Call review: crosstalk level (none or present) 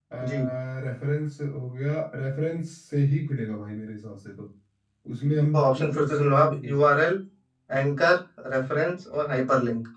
present